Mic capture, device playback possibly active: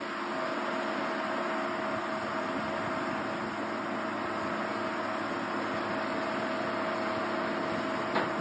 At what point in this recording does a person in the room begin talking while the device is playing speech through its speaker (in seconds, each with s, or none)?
none